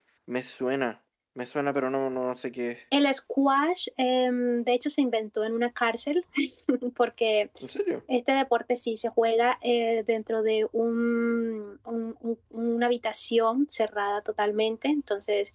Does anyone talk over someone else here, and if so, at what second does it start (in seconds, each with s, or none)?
none